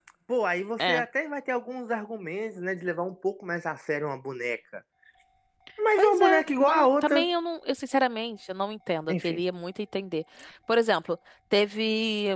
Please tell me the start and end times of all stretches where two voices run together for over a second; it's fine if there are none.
6.0-7.3

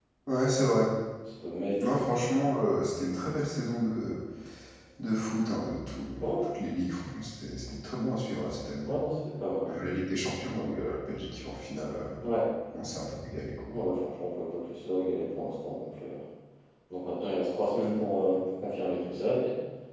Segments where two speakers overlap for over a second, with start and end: none

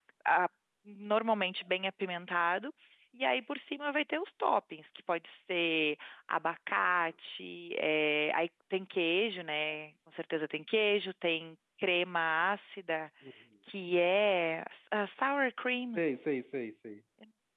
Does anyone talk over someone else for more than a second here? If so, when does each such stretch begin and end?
none

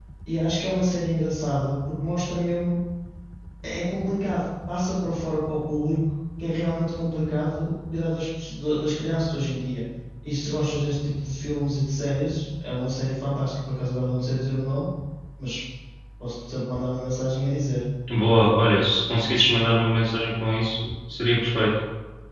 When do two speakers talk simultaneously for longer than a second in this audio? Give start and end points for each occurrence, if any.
none

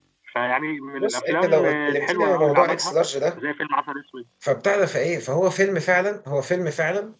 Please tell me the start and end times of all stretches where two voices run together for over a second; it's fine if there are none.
1.0-3.0

